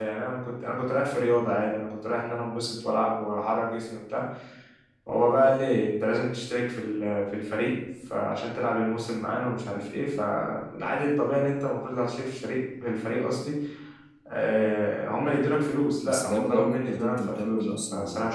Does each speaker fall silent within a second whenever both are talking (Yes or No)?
No